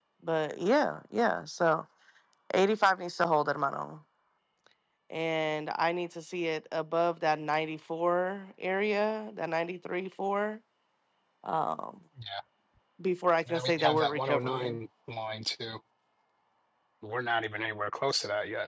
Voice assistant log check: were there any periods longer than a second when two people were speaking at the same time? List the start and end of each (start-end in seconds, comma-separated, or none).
13.5-14.8